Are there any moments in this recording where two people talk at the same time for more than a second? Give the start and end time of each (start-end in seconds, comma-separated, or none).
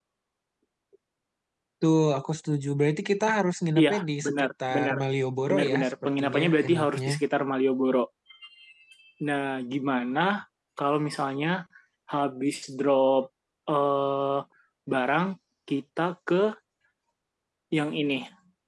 3.8-5.0, 5.5-7.1